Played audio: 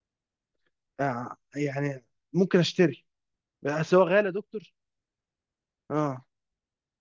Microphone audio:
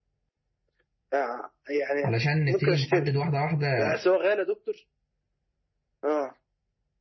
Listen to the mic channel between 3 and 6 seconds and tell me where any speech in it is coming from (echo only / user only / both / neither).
both